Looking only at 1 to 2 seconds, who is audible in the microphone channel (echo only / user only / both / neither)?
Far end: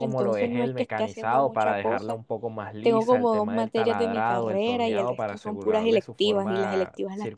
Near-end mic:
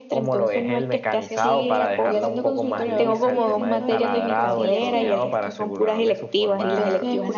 both